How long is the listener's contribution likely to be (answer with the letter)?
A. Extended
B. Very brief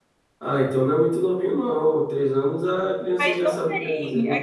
A